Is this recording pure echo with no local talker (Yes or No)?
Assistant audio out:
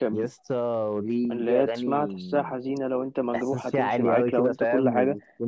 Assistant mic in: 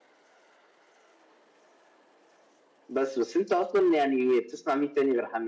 No